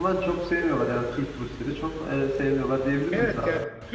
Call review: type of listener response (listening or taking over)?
taking over